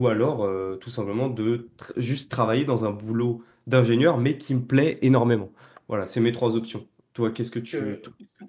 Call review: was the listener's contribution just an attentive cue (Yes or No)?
No